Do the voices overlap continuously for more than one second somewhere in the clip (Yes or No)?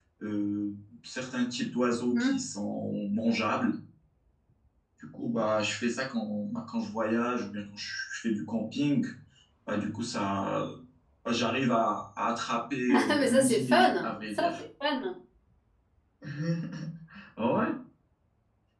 Yes